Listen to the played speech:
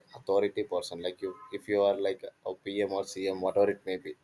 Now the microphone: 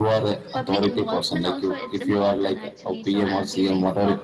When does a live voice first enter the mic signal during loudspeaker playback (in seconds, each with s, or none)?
0.5 s